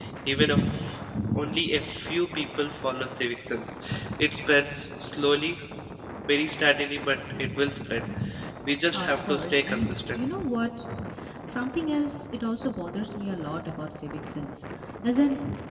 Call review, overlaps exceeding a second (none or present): present